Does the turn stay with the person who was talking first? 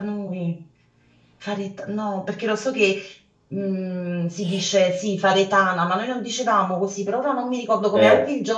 No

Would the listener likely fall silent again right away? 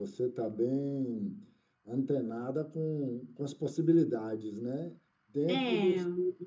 Yes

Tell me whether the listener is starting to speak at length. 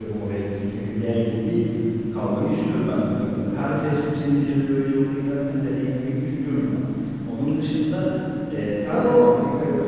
No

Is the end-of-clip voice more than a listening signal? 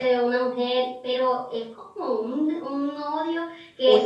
Yes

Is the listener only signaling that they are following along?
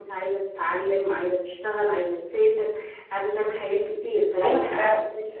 No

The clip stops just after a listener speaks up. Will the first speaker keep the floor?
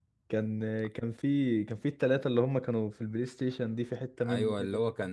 No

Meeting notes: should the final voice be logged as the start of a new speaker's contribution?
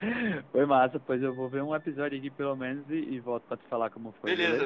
Yes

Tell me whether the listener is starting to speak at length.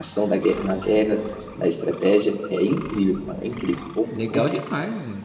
Yes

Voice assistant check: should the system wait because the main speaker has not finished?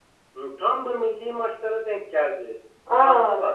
Yes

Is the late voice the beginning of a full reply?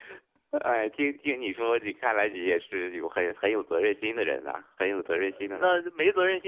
Yes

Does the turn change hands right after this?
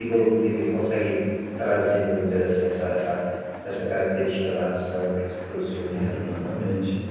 Yes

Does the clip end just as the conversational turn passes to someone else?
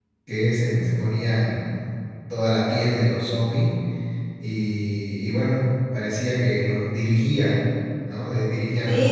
Yes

